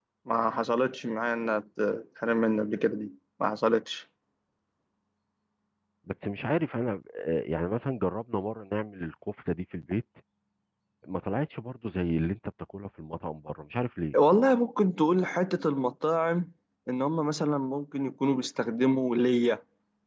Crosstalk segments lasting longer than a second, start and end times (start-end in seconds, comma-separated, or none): none